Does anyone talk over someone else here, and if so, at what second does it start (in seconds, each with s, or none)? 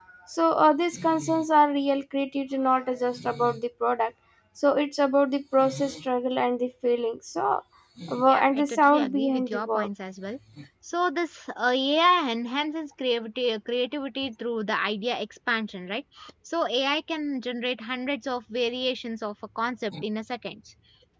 8.3 s